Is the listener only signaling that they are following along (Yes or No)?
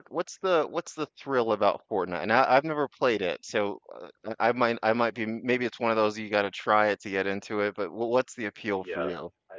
No